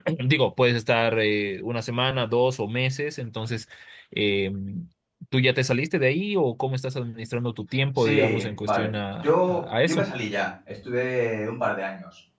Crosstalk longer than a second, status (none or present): present